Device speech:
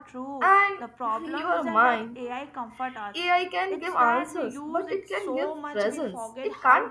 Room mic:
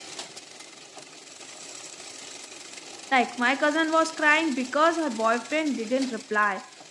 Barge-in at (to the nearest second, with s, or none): 3 s